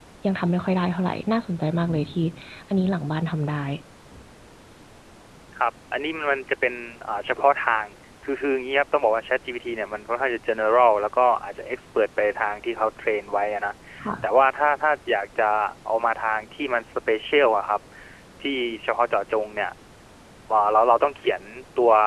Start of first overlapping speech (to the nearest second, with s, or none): none